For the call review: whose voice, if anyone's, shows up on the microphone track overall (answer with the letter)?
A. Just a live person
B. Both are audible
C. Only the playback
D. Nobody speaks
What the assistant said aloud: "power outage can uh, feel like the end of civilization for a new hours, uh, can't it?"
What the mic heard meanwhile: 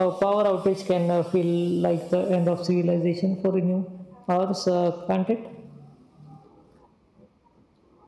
C